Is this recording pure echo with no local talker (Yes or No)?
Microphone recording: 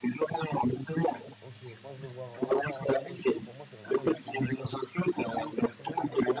No